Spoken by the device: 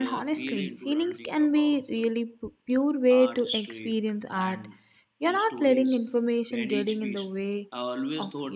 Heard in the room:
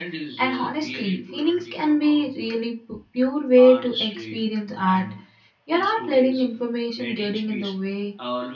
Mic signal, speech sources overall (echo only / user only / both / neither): echo only